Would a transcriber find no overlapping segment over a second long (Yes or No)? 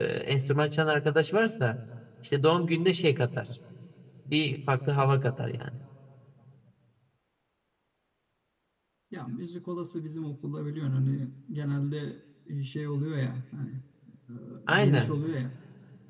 Yes